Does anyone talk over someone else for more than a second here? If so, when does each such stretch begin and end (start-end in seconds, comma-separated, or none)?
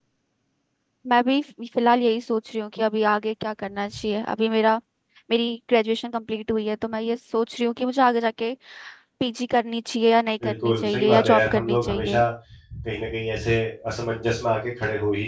10.4-12.2